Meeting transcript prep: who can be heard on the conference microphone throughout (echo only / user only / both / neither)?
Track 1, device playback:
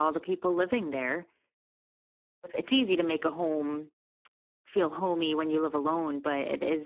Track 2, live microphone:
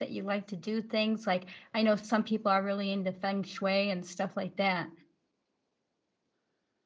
user only